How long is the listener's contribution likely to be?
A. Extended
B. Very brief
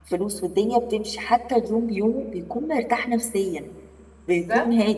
B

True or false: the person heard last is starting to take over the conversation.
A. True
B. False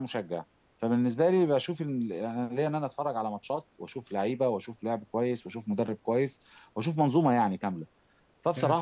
B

